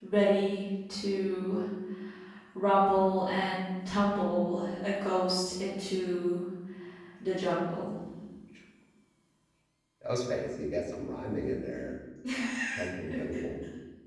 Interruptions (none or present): none